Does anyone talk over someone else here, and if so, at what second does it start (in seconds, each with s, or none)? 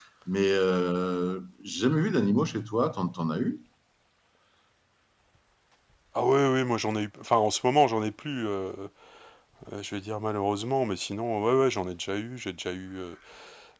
none